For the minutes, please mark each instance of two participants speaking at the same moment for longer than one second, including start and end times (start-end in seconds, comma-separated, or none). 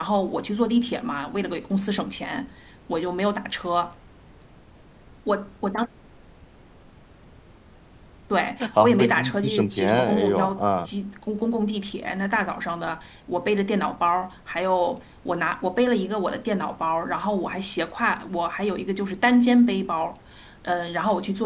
8.8-10.9